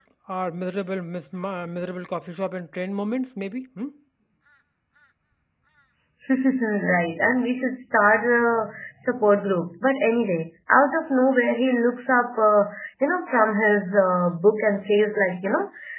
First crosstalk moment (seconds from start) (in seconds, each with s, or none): none